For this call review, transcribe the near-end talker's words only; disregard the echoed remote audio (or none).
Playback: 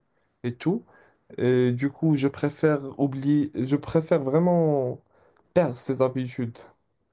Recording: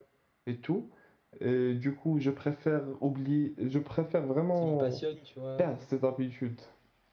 qui me passionnent, tu vois.